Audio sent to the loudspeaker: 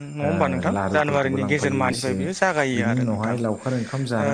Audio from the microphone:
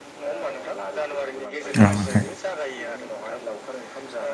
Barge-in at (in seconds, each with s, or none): 1.8 s